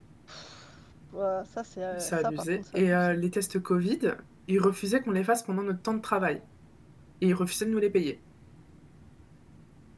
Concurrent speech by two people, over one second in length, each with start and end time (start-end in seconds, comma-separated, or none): 2.0-3.2